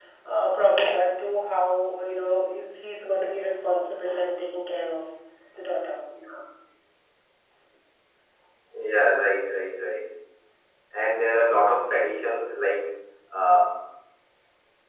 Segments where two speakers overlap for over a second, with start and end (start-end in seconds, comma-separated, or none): none